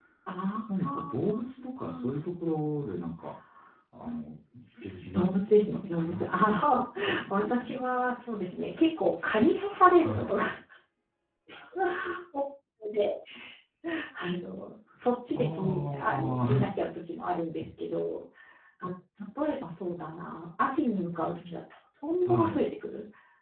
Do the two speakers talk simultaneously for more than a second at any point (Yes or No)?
Yes